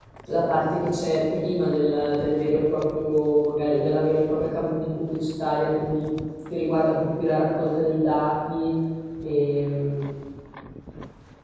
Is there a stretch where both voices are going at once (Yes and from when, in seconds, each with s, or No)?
No